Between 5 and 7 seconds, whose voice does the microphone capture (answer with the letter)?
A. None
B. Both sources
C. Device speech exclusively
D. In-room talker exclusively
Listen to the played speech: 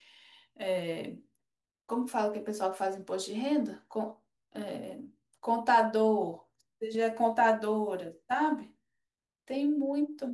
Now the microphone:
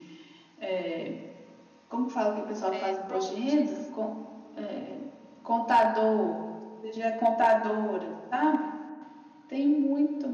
C